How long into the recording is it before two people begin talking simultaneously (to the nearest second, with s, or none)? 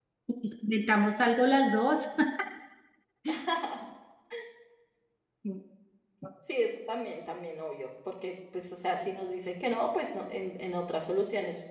none